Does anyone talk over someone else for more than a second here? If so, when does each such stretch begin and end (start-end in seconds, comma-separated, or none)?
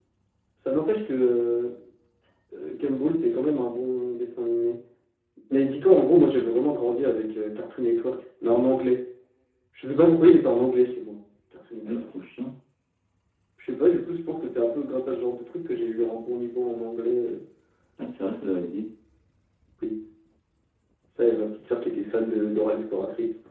none